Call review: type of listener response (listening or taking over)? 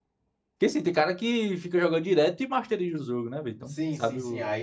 taking over